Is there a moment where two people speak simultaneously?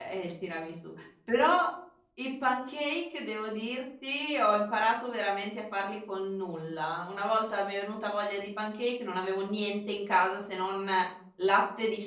No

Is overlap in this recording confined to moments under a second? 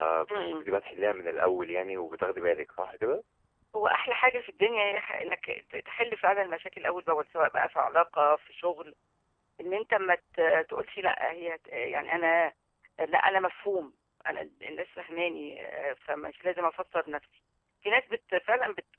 Yes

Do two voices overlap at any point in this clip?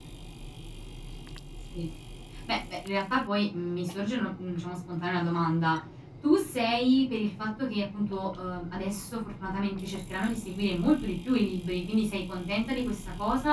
No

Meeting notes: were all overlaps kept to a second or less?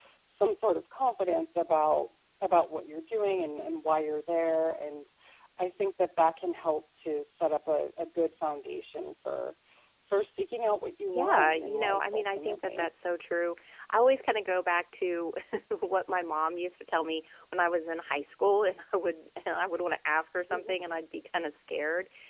No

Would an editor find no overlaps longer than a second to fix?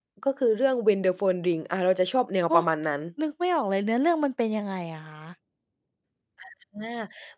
Yes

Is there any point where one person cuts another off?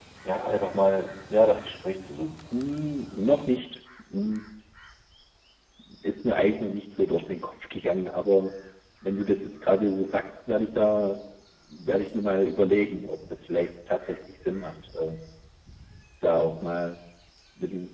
No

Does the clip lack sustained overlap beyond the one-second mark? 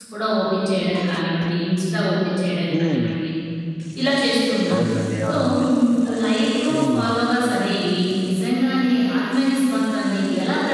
Yes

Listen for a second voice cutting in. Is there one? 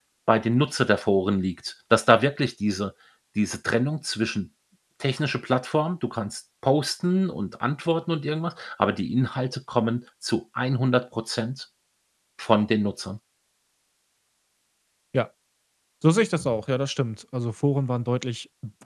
No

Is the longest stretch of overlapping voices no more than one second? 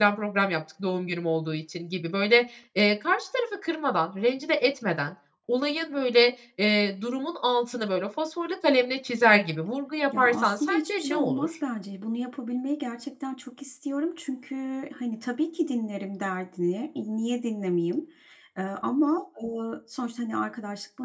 No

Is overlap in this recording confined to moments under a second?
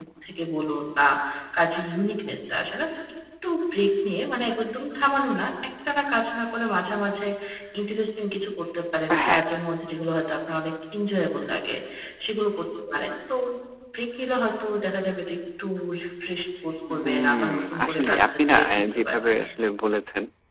No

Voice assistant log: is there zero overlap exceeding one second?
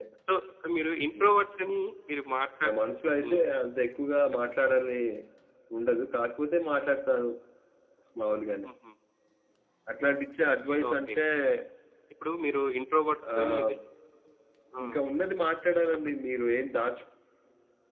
Yes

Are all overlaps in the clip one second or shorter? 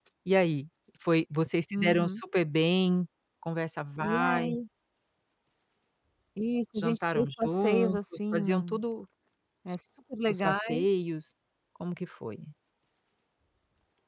No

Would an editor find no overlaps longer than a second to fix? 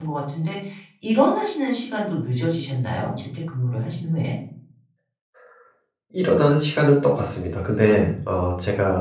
Yes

